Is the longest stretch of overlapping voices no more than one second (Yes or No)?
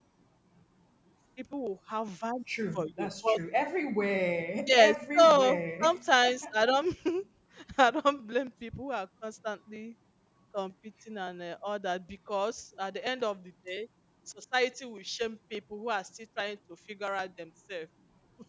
No